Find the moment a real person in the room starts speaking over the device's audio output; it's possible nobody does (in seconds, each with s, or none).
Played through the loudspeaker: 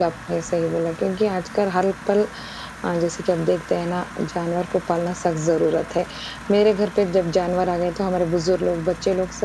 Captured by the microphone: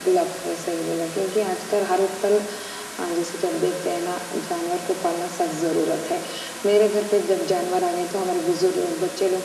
none